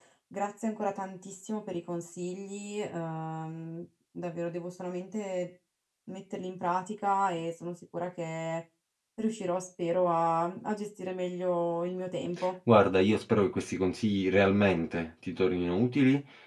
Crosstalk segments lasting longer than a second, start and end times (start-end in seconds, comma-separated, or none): none